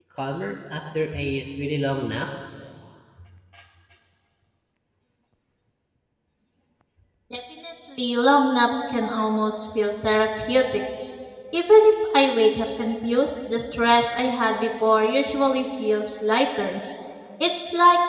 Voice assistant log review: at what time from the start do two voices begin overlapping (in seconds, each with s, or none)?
none